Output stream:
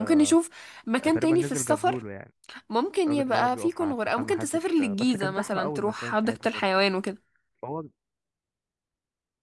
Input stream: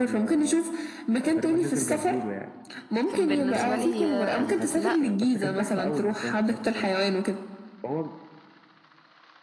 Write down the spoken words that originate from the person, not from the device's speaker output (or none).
كان بالنسبة لي آه، لا